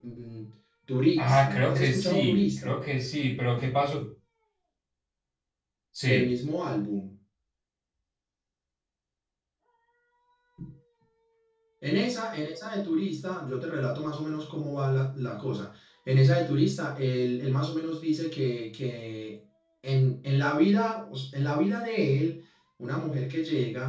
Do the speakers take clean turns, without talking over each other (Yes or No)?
No